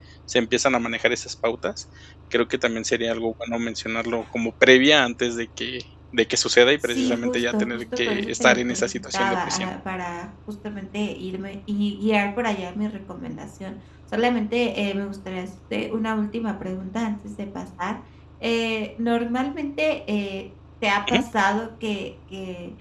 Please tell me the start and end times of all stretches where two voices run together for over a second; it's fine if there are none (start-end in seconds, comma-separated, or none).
6.8-9.7